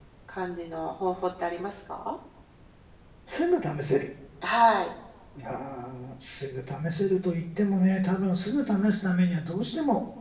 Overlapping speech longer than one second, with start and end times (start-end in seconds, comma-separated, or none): none